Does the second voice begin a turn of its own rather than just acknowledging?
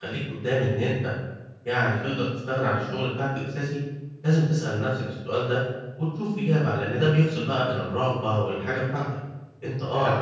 No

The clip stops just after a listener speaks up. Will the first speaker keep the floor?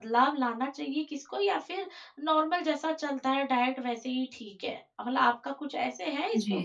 No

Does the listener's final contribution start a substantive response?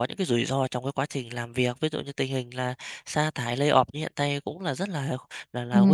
Yes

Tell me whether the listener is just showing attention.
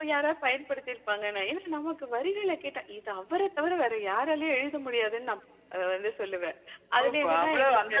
No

